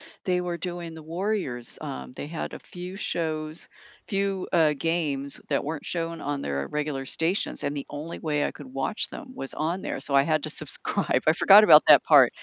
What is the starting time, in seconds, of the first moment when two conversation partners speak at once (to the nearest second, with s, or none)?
none